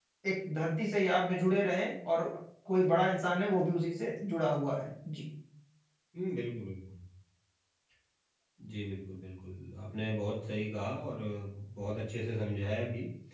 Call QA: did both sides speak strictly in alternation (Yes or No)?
Yes